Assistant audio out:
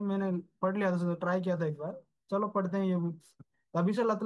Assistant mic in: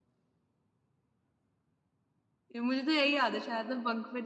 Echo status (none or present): none